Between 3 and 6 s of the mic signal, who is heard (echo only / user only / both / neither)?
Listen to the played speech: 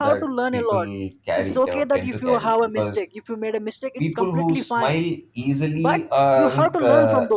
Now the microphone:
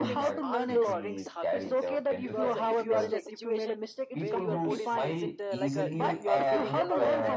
both